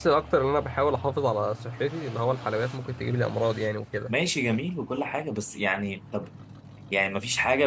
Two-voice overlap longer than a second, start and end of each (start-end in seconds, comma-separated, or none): none